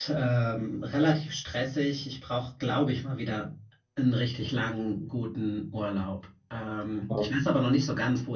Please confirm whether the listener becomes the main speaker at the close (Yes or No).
No